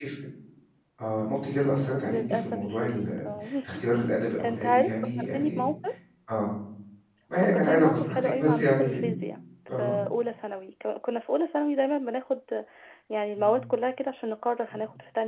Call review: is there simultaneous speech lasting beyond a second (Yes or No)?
Yes